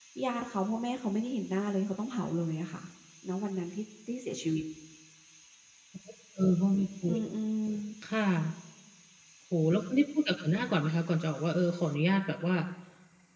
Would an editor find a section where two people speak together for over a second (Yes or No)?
No